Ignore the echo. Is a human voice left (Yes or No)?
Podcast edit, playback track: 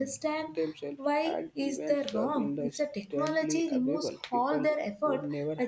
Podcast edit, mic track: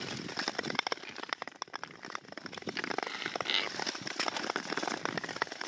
No